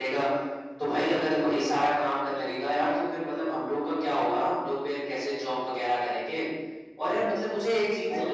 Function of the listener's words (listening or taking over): listening